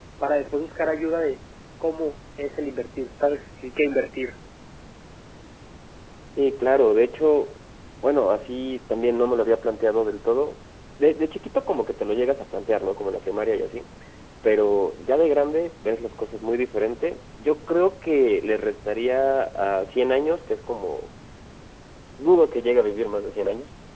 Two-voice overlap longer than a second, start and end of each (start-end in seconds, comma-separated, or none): none